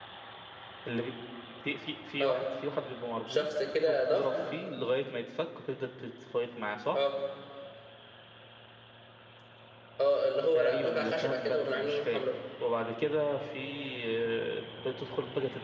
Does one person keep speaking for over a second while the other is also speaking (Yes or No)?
Yes